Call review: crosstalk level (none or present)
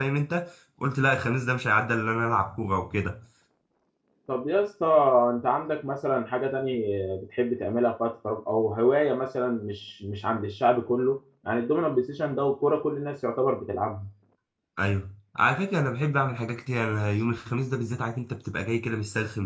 none